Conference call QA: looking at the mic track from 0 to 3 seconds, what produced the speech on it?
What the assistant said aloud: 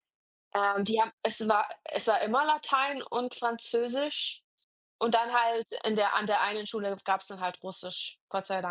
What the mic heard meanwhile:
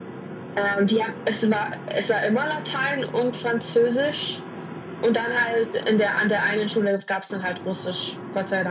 echo only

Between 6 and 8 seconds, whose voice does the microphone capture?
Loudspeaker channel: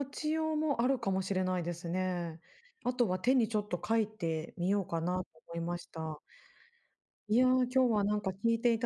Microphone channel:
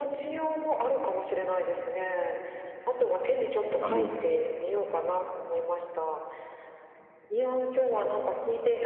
echo only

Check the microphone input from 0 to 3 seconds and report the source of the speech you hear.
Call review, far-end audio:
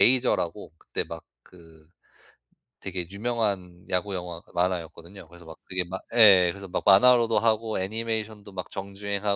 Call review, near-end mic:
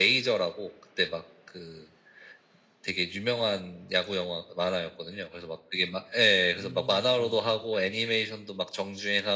echo only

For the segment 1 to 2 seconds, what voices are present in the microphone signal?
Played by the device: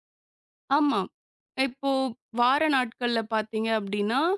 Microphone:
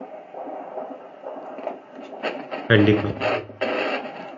neither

